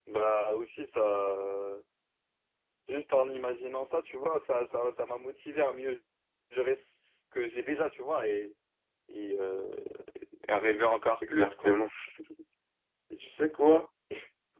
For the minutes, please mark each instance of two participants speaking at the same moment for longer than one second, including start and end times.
none

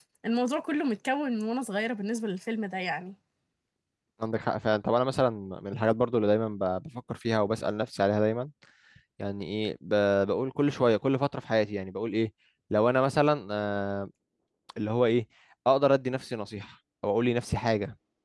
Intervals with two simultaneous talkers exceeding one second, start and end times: none

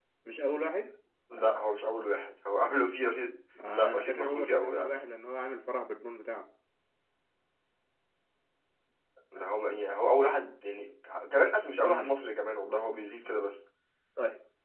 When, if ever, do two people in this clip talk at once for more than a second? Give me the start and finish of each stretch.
3.7-5.0

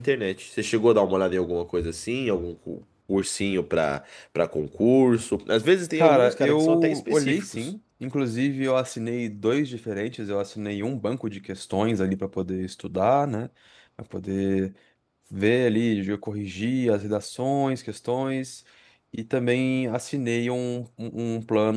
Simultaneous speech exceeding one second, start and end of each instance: 6.0-7.7

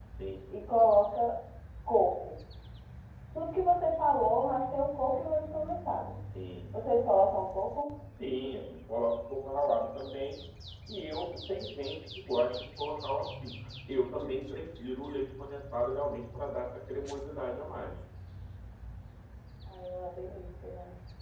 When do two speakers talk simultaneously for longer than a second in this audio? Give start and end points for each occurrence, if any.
none

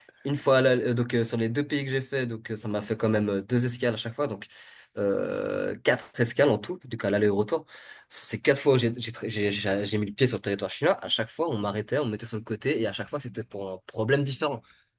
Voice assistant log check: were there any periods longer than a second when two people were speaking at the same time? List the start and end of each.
none

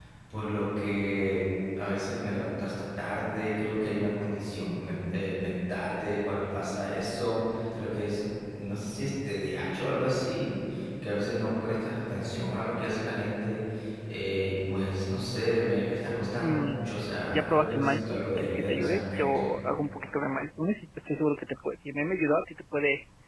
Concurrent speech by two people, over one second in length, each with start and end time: 17.3-19.5

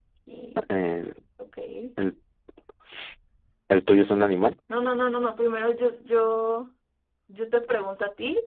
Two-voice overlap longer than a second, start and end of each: none

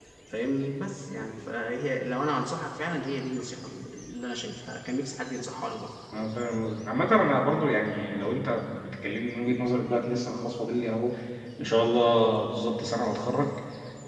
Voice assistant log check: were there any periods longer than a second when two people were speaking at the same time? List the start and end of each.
none

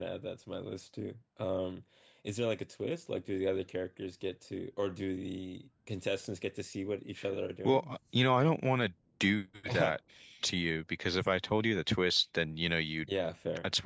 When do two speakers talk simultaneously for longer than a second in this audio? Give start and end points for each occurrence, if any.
none

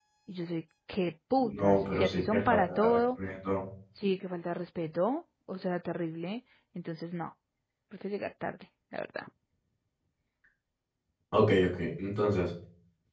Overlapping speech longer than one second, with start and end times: 1.6-3.0

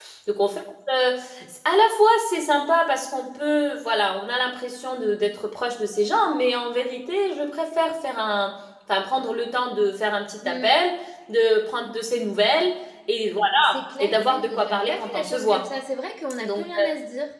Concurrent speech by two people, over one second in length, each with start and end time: 13.6-15.7

